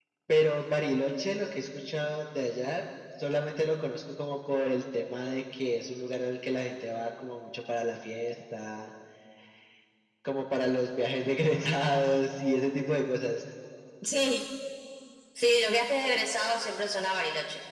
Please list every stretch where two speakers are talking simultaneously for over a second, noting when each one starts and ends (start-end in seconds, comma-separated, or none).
none